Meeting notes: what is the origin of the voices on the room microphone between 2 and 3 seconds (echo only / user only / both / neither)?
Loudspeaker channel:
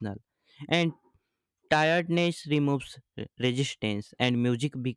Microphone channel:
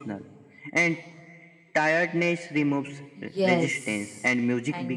echo only